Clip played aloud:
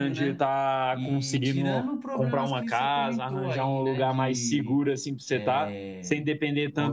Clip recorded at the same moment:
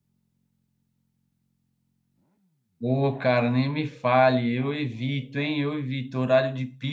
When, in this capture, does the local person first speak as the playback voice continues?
2.8 s

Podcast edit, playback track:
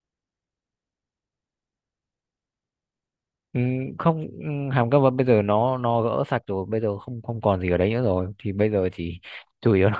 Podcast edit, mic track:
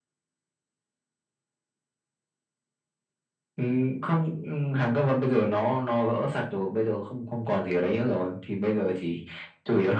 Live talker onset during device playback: none

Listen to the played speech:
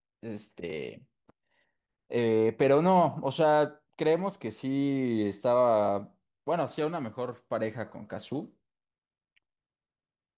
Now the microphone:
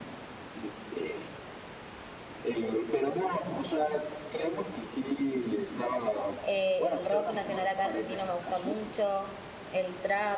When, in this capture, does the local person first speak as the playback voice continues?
6.4 s

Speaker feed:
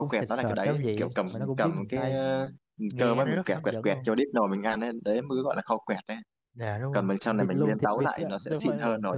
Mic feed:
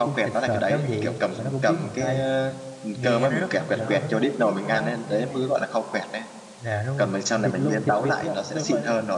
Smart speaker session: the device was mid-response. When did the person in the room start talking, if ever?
3.7 s

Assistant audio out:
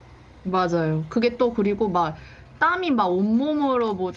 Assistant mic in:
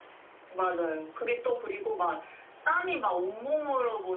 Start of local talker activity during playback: none

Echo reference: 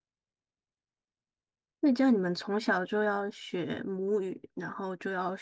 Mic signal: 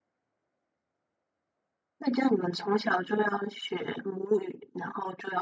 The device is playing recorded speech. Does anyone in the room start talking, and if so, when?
none

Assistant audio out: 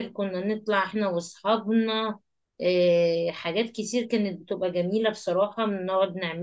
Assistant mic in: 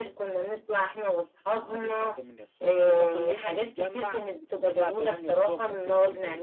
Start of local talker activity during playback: 1.4 s

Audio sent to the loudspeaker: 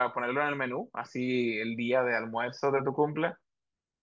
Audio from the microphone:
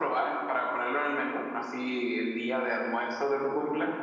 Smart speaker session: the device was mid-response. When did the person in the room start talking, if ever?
none

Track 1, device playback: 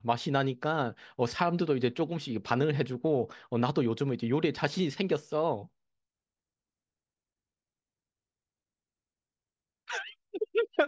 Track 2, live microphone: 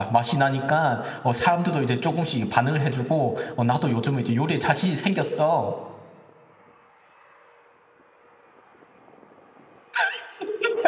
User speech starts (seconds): none

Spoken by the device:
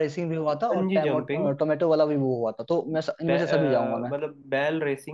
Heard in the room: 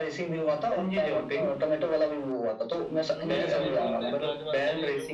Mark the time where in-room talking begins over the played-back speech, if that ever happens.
3.2 s

